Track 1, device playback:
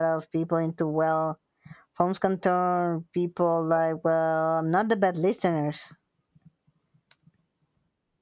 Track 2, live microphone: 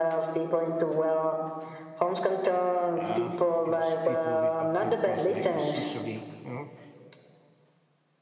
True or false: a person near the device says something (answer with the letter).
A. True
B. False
A